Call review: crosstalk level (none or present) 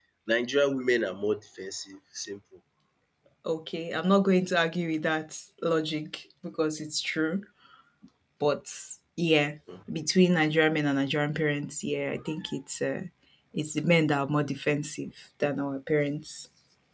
none